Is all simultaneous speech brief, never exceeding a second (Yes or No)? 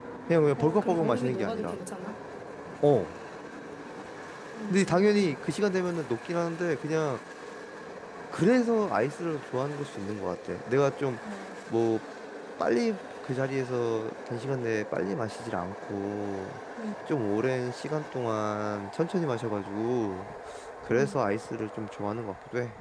No